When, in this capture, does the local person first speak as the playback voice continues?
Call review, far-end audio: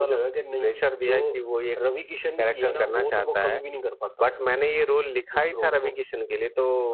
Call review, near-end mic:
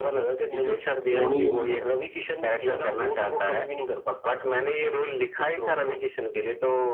0.5 s

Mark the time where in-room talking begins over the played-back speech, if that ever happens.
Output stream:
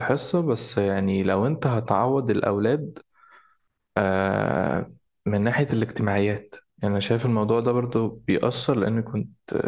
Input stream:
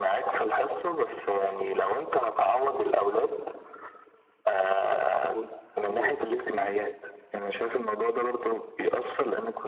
5.3 s

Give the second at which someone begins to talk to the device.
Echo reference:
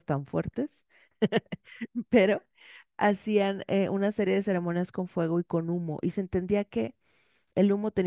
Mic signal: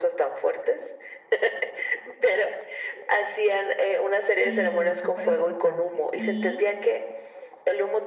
4.4 s

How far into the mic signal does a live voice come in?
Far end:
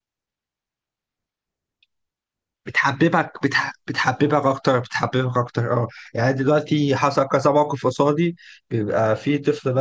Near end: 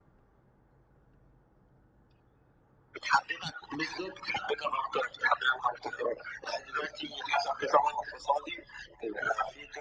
3.8 s

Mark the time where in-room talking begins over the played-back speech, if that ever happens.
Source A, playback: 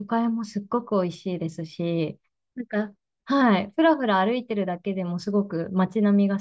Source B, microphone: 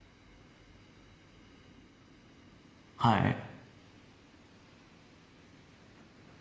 3.0 s

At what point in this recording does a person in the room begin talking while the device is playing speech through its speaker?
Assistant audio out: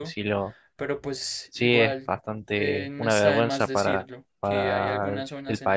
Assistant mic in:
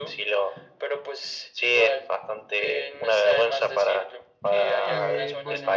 4.8 s

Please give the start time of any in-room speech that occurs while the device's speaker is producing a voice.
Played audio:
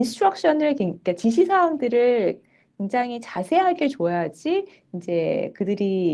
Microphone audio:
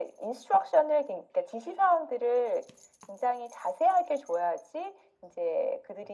none

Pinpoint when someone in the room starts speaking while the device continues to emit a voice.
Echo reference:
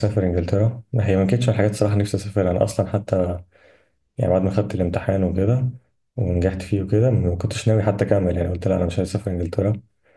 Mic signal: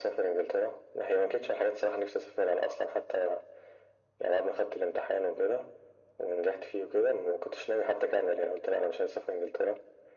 none

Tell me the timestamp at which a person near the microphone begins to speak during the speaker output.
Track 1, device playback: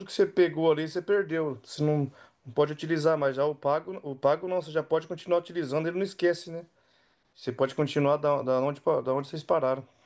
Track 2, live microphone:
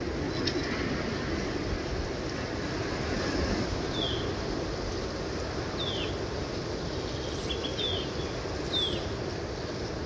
none

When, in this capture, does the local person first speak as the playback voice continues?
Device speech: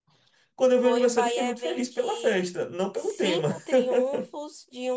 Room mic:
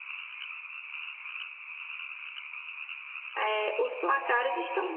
3.4 s

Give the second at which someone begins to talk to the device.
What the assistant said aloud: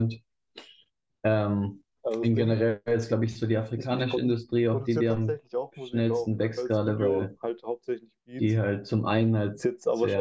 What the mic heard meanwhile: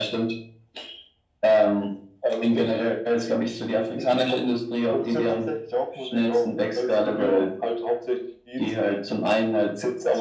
none

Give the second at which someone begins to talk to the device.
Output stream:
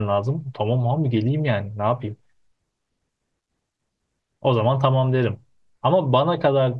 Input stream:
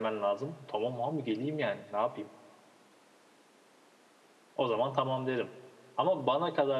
none

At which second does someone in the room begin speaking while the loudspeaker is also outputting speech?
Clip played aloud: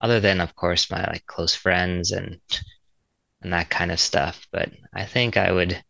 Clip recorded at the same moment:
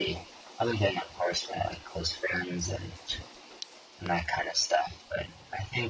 none

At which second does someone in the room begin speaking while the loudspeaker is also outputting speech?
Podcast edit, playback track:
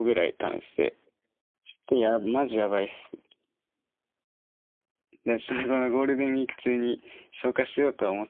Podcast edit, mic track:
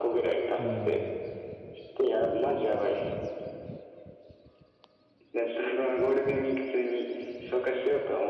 0.6 s

